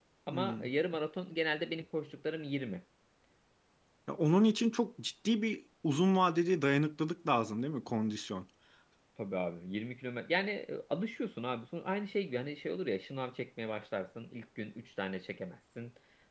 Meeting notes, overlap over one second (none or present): none